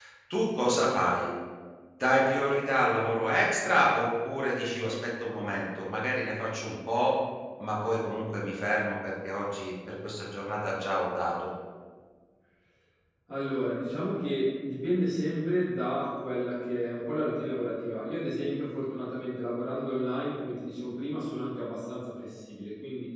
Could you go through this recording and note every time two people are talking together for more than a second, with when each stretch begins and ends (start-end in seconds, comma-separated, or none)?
none